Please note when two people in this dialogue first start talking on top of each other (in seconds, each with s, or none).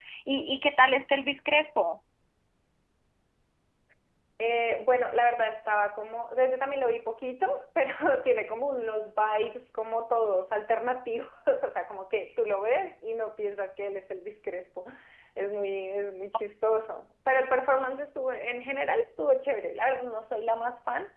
none